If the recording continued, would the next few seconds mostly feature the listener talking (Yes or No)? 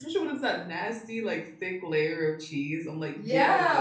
Yes